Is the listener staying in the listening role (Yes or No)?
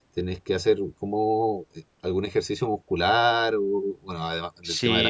No